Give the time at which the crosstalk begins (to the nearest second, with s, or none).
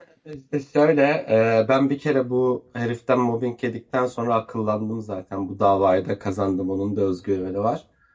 none